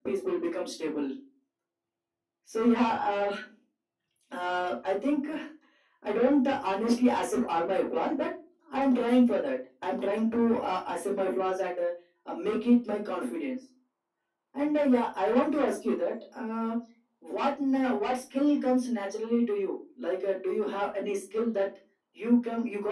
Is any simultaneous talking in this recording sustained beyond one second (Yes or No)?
No